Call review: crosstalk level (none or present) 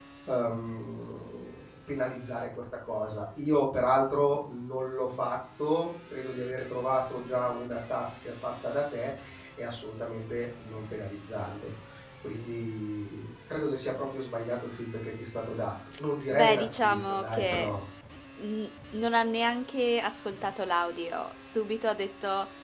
present